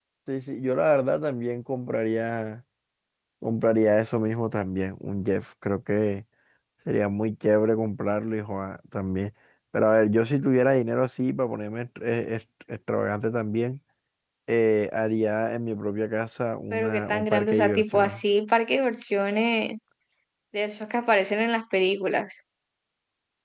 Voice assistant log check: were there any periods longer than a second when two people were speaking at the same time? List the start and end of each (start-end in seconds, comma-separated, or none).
16.7-18.2